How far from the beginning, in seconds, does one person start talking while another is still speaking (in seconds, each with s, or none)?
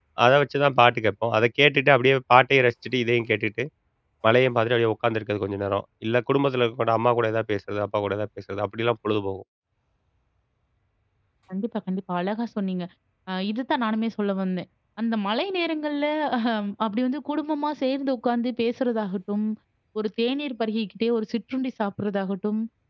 none